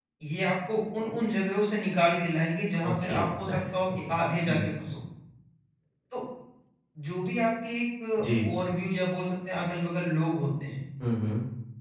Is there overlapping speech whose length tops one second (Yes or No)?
Yes